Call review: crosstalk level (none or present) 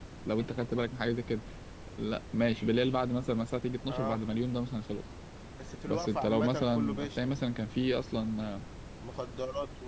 present